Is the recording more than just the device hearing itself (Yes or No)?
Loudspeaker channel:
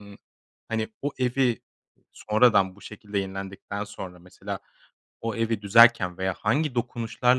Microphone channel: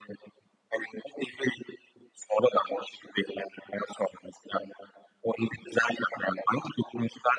No